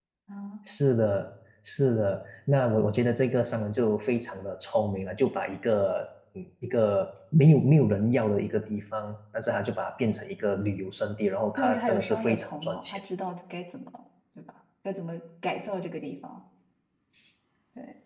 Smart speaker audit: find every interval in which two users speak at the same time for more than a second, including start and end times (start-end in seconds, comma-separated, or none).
11.6-13.0